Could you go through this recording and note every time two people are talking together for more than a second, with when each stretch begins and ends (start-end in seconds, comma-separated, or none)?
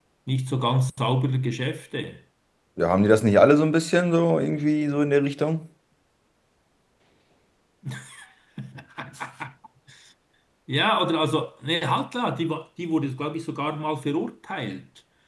none